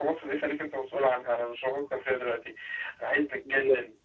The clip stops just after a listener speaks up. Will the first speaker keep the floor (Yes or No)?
Yes